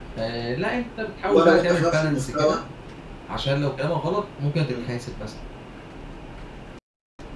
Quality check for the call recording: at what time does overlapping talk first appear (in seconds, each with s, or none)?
1.3 s